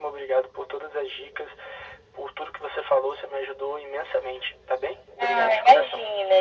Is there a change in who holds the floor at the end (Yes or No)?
Yes